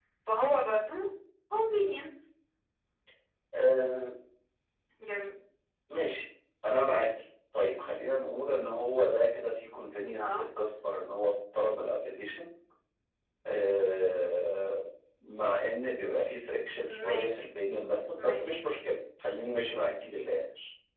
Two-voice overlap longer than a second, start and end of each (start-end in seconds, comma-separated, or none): none